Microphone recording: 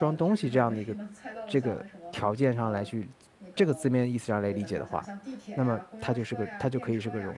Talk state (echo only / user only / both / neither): both